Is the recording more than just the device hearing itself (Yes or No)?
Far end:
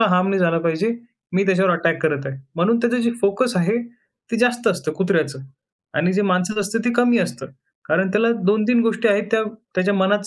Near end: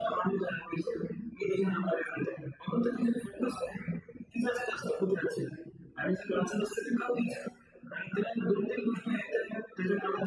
No